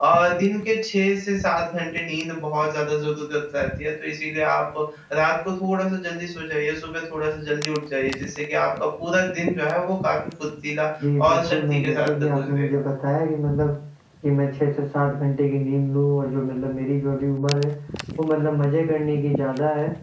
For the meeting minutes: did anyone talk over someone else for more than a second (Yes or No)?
Yes